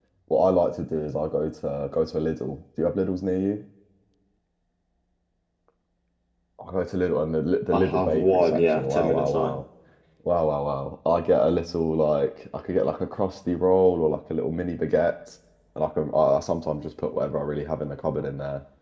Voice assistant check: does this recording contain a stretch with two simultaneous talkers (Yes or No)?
Yes